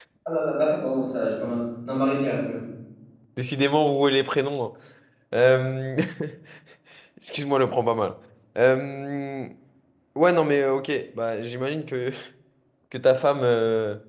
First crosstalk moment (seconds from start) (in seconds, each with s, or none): none